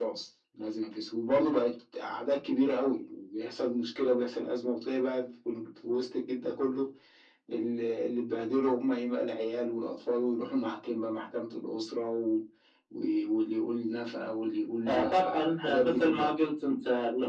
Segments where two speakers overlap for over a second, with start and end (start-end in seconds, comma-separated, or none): 14.8-16.3